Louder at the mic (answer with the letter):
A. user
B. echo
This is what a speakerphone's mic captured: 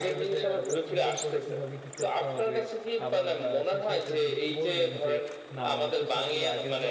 B